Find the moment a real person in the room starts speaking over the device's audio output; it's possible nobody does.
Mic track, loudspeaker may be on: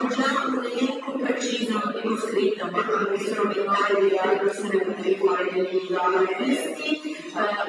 none

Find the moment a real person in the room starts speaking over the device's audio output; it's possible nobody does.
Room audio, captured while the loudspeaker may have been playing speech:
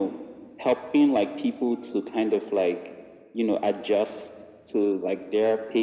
none

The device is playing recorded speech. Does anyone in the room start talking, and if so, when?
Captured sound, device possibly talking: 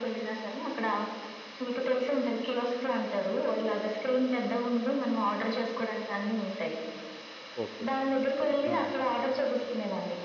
7.6 s

